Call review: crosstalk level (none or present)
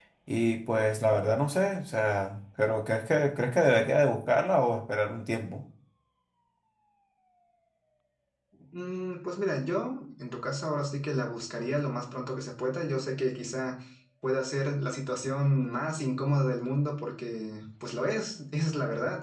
none